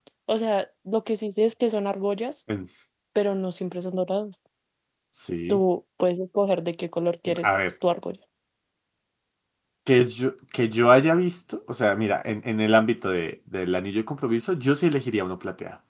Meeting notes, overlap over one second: none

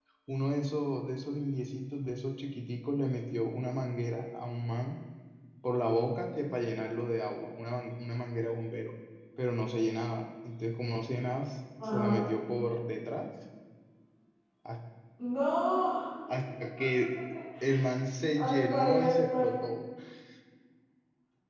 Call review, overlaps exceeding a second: present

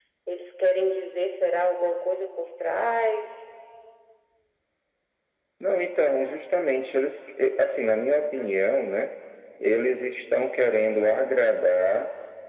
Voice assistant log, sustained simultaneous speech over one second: none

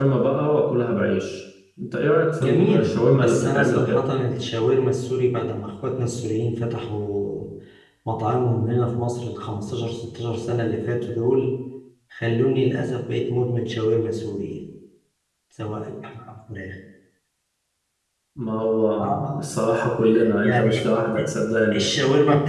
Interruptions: present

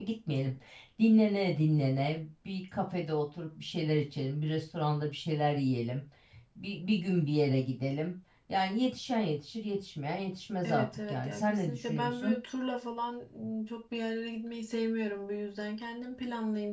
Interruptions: present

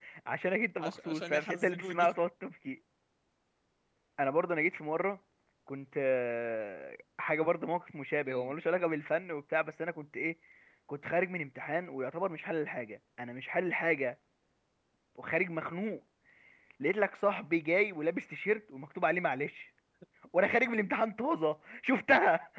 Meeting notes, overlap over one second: present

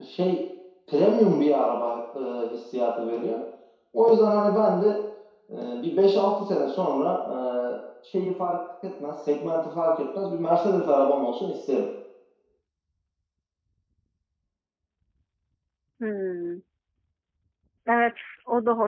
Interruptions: none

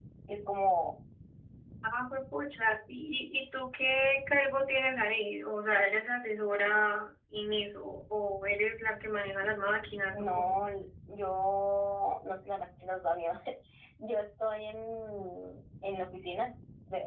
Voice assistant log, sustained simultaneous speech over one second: none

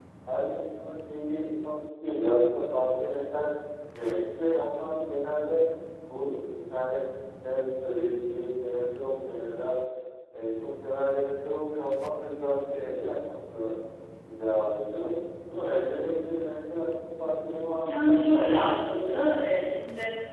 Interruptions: present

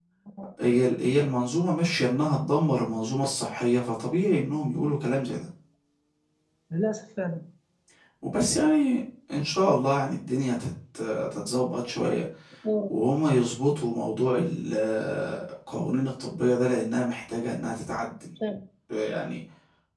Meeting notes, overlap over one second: none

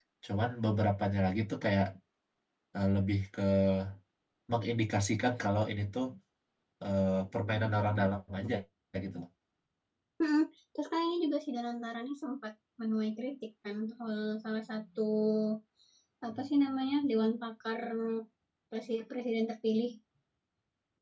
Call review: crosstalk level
none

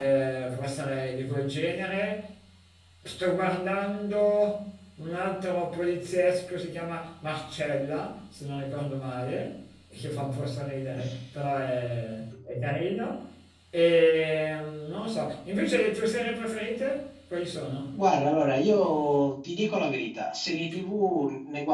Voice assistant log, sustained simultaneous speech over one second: none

